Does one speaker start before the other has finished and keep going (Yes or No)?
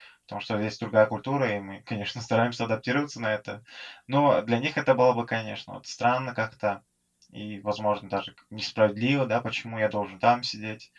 No